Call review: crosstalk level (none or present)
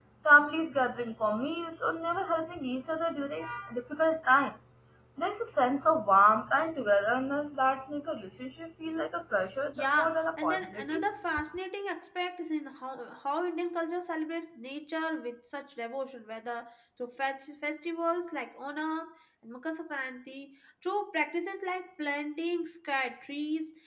present